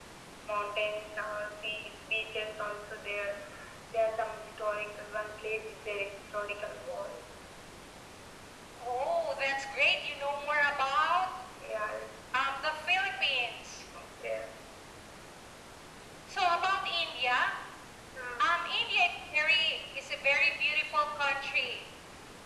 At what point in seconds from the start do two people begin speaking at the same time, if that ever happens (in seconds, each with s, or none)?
none